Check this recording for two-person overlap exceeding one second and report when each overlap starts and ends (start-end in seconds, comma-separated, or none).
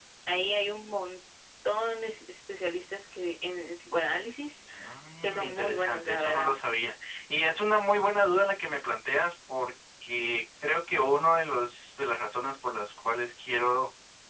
5.2-6.5